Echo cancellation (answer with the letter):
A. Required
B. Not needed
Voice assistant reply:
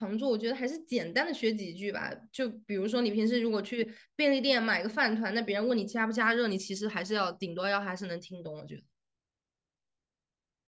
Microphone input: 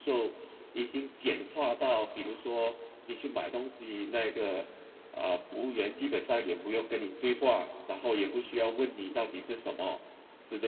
B